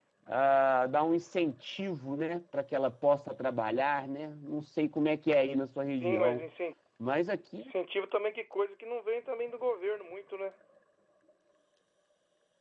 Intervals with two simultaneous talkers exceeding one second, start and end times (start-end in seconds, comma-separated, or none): none